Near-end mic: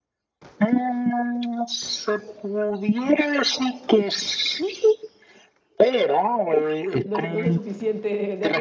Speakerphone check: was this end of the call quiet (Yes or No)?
No